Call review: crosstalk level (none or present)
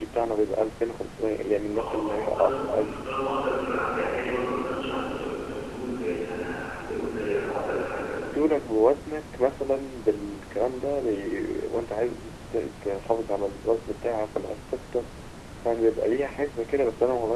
present